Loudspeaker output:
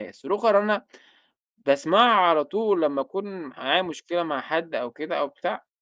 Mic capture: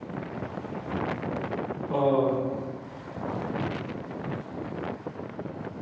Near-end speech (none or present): present